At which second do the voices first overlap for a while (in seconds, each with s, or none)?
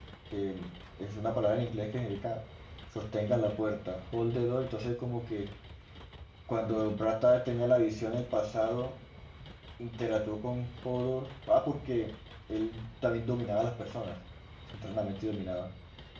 none